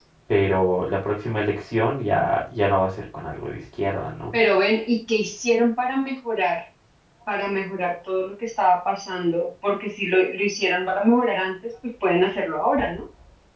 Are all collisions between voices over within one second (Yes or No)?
Yes